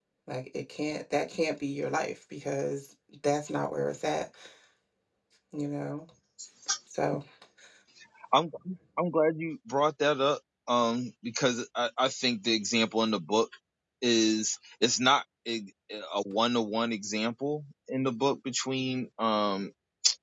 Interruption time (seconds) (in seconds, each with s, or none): none